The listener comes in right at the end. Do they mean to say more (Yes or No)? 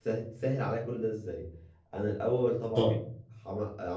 No